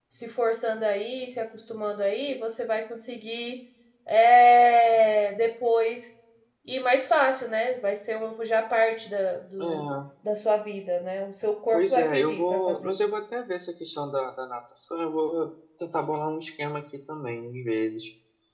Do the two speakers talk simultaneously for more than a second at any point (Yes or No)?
Yes